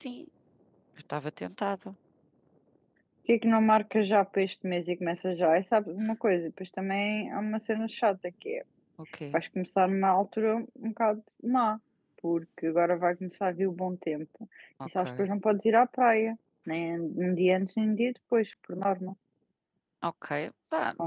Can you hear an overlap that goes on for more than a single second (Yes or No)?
No